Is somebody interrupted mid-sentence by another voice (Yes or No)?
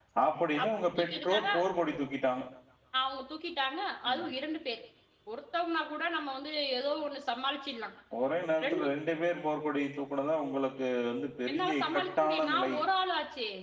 Yes